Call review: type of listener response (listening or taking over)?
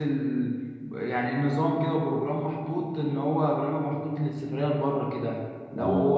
listening